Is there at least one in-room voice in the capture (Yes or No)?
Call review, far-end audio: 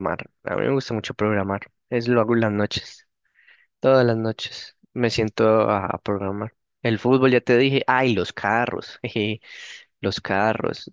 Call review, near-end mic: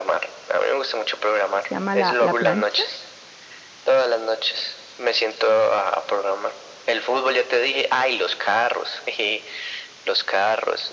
Yes